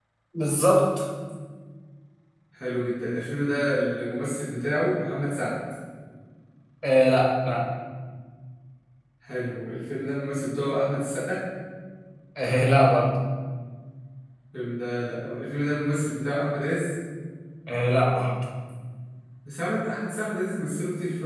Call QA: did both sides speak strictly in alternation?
Yes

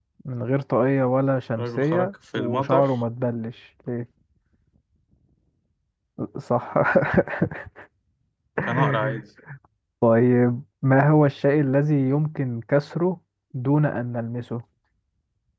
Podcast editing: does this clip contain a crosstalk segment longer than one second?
Yes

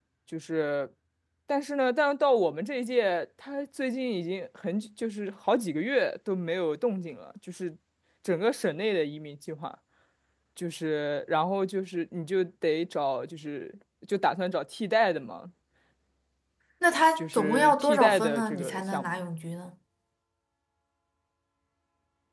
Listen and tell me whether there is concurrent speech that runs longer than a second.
Yes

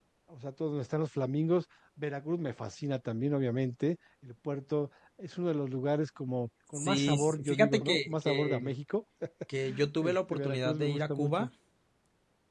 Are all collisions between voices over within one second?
No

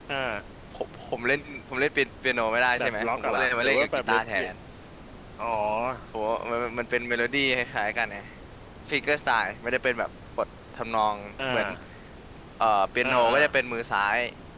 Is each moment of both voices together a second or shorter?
No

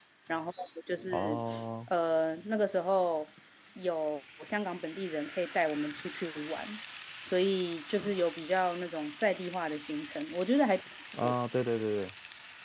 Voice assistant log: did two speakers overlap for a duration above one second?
No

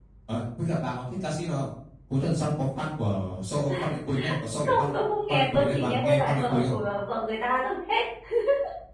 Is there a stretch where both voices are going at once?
Yes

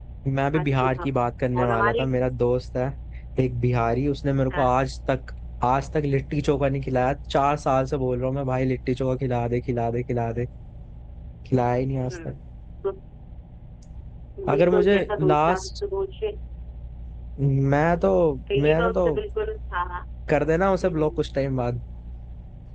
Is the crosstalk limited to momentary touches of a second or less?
No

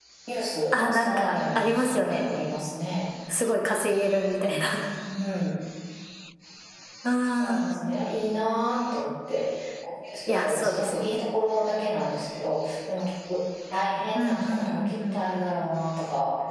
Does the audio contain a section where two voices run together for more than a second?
Yes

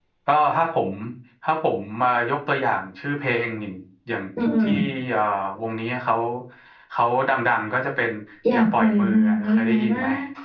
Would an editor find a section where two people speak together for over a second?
Yes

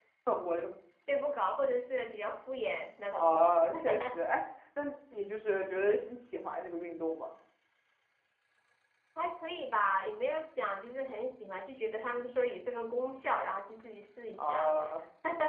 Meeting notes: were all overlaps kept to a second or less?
Yes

